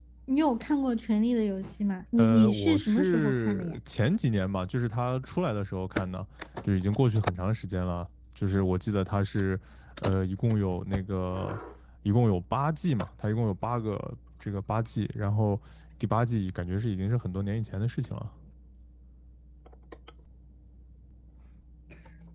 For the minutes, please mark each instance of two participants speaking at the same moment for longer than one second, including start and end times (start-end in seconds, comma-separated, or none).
2.2-3.8